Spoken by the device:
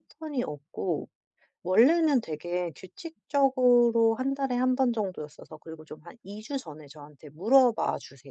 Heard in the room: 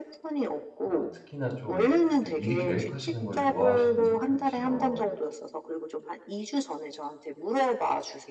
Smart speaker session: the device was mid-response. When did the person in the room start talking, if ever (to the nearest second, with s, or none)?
1 s